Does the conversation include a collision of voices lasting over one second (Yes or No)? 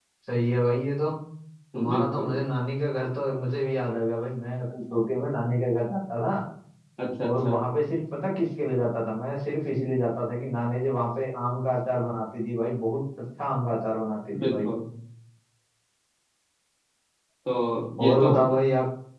No